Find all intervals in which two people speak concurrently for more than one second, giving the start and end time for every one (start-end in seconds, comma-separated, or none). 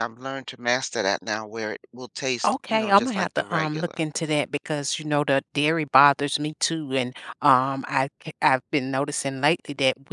2.4-4.0